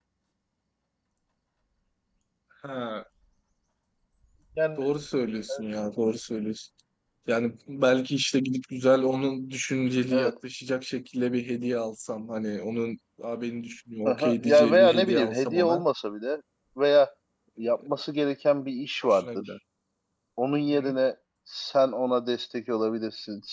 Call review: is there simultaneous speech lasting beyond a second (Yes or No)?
Yes